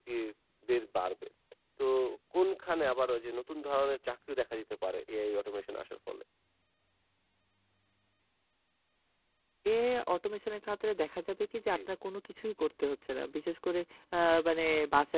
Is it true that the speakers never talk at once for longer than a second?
Yes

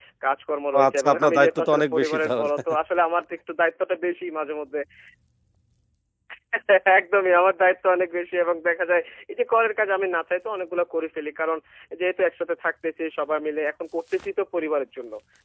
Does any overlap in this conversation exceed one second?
Yes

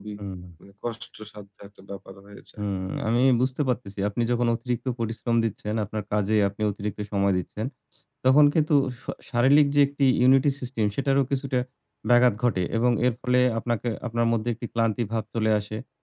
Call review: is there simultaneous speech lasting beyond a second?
No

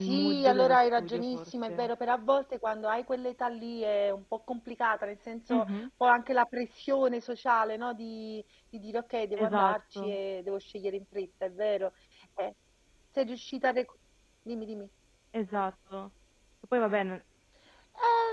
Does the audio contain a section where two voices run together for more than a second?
Yes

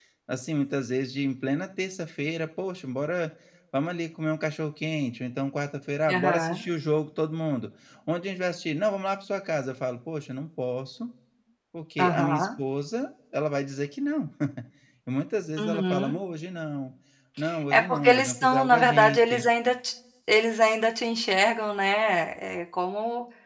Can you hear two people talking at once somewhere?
Yes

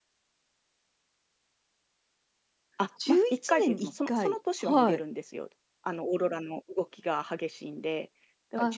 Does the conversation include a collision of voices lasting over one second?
Yes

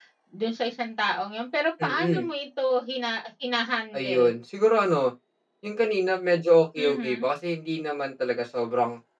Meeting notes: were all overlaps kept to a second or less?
Yes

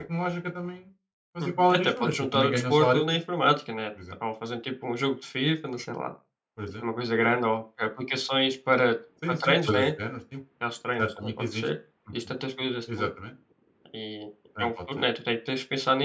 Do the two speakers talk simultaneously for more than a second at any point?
Yes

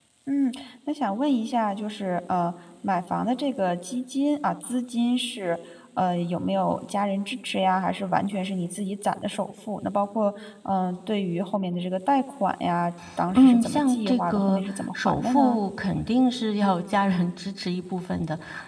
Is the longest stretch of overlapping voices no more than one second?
No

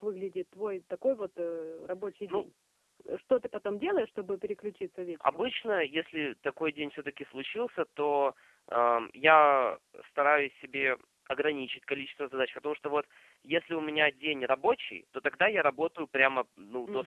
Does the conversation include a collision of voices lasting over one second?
No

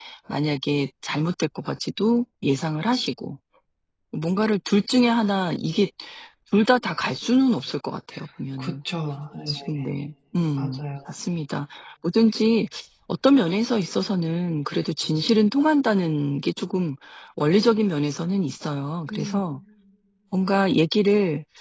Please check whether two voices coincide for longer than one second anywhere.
No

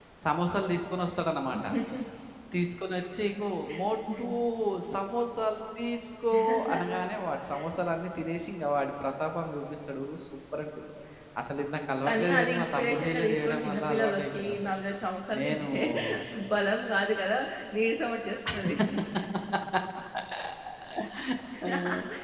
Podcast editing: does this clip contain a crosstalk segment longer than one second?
Yes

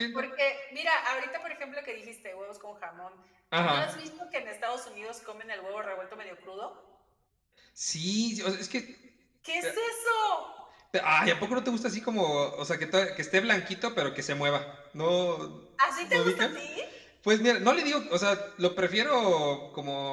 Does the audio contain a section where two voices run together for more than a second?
No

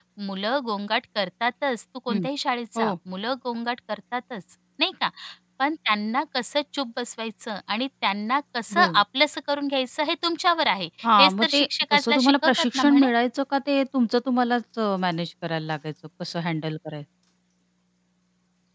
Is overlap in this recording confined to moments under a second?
No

